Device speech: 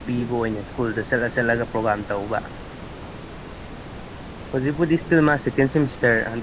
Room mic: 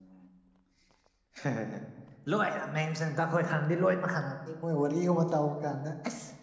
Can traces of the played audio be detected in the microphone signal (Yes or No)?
No